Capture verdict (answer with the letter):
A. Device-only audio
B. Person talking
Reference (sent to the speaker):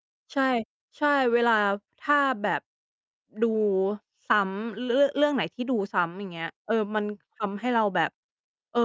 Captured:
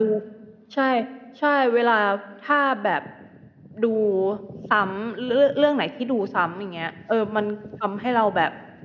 A